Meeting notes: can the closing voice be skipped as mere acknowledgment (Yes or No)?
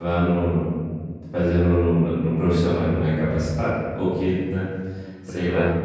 No